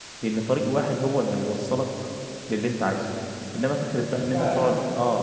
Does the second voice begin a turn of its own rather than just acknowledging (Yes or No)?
No